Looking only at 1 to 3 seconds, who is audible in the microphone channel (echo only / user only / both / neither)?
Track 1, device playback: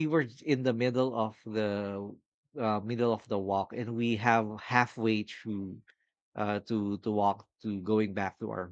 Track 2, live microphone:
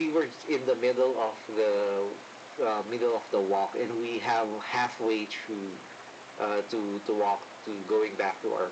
echo only